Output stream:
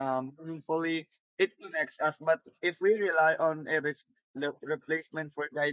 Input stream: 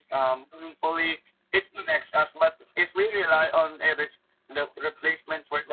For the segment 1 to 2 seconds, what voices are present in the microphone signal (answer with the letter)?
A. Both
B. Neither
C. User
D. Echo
D